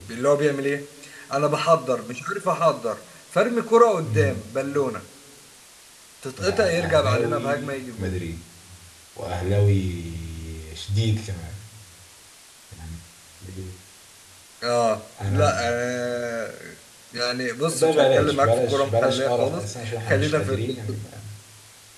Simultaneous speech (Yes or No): Yes